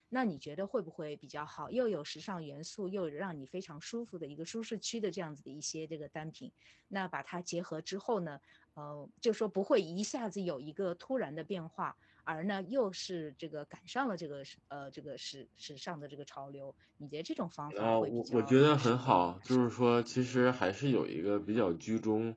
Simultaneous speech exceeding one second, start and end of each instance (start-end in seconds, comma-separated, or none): 17.8-19.7